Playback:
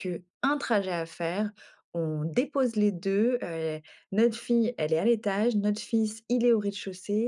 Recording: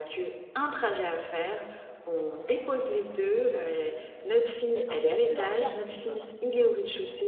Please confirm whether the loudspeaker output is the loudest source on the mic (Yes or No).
Yes